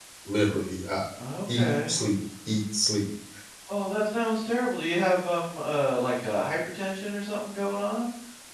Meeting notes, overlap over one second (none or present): none